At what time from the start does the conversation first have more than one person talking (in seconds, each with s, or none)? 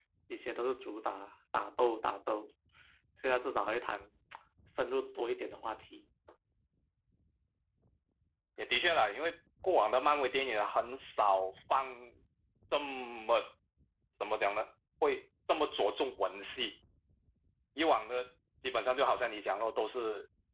none